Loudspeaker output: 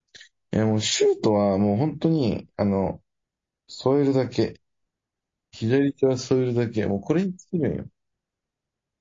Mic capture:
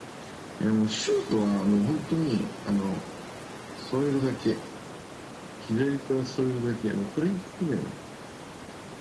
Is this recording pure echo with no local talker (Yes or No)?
Yes